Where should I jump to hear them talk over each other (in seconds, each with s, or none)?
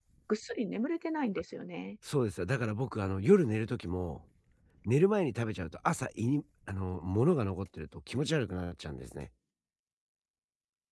none